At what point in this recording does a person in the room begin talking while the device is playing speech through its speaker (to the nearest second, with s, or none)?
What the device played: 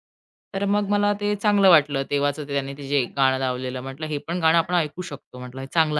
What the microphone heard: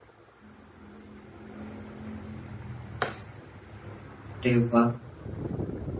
4 s